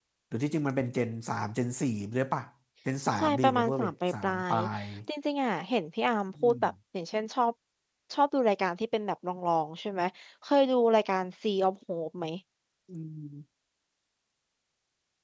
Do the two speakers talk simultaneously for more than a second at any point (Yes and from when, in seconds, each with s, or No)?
Yes, from 3.2 s